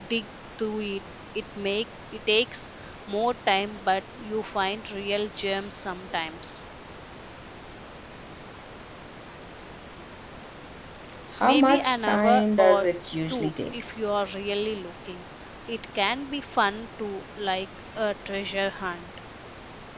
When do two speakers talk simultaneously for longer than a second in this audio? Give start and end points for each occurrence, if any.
11.4-12.9

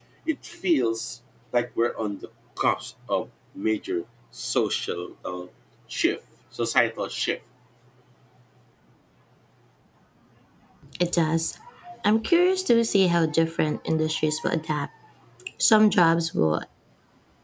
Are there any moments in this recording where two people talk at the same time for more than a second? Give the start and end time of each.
none

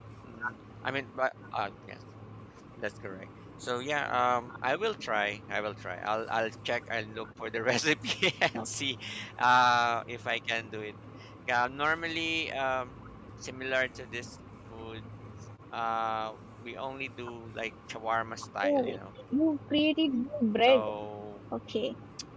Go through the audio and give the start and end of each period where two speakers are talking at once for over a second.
none

